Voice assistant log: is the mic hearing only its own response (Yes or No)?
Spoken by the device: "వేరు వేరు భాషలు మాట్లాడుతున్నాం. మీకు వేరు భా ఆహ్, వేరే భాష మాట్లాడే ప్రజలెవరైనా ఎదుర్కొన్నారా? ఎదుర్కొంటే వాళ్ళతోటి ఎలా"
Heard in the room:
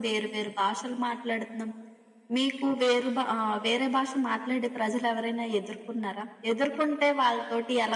Yes